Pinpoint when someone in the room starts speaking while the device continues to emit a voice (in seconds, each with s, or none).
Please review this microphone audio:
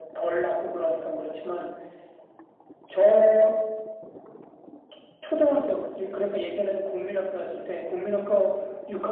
none